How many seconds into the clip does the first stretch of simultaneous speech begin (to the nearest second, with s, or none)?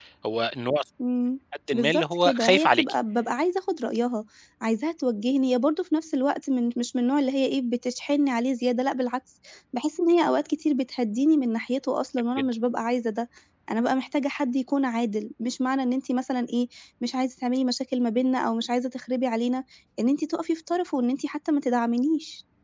2 s